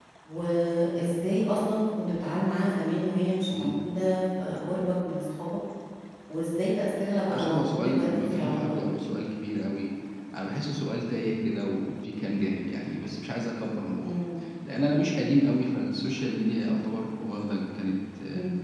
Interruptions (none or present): present